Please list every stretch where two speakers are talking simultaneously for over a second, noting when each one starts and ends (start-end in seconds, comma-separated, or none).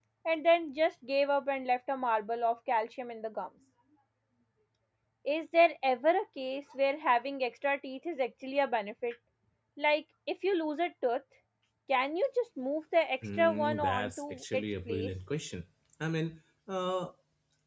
13.4-15.1